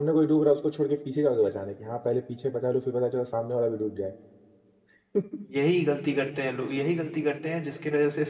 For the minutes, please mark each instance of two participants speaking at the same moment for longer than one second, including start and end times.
none

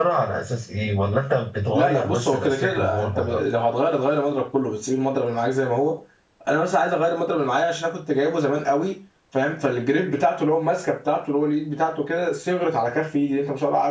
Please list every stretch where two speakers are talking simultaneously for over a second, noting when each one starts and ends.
1.7-3.4

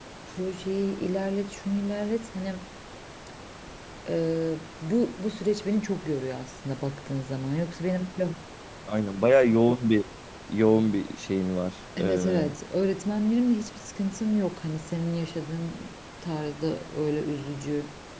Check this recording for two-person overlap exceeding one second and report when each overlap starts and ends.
none

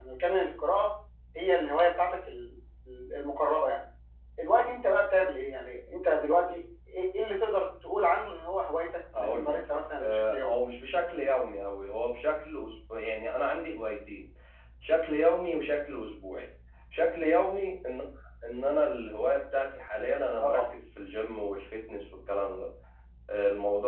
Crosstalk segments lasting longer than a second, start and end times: 9.2-10.6

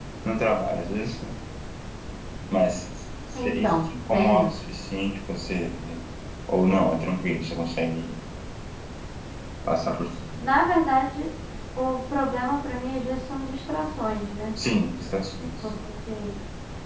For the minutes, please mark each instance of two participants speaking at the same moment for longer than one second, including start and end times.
3.4-4.7

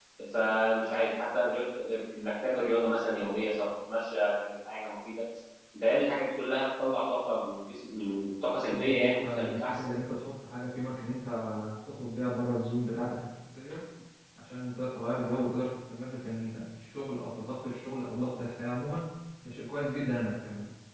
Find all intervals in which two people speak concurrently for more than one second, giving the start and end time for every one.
8.6-9.9

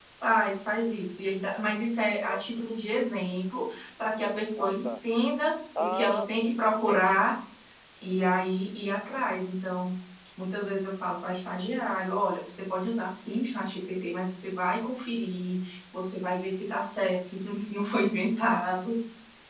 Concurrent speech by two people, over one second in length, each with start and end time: 5.8-7.2

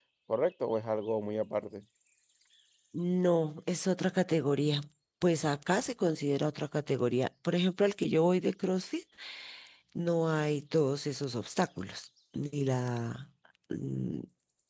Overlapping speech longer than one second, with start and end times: none

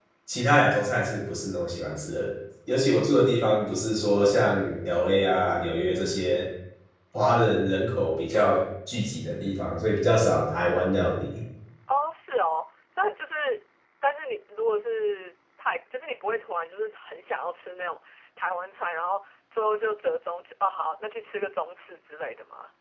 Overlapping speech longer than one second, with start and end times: none

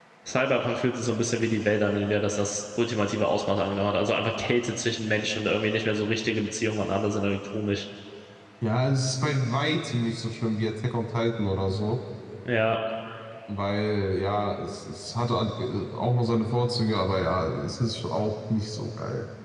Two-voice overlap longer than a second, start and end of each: none

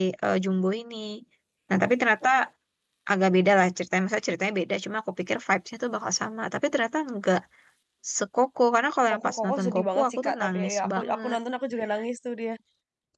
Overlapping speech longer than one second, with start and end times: 9.1-11.4

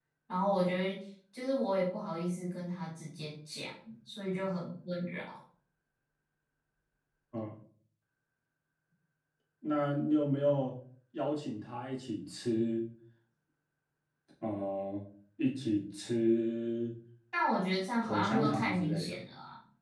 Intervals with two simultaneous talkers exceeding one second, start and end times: 18.0-19.2

